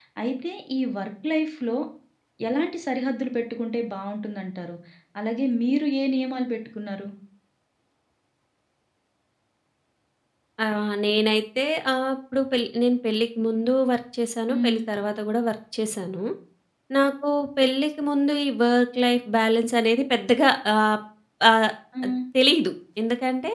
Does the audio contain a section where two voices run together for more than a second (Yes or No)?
No